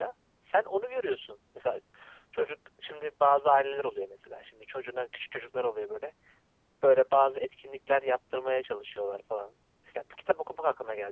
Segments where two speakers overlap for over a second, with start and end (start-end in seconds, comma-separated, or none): none